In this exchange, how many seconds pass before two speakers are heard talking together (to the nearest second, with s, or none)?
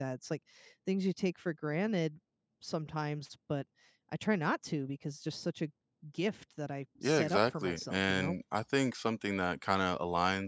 7 s